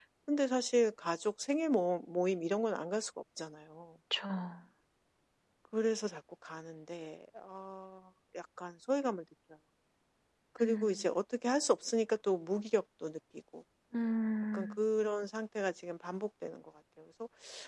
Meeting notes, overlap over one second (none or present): none